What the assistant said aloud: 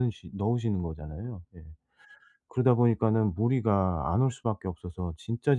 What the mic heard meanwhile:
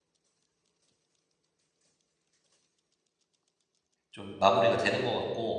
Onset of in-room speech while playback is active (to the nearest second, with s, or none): 4 s